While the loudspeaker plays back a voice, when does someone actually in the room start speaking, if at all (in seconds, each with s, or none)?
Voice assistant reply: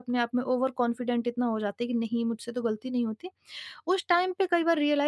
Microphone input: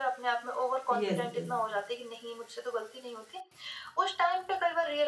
0.9 s